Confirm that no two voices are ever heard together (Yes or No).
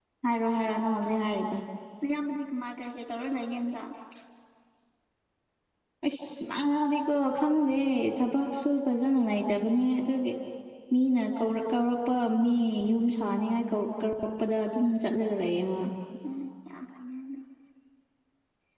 Yes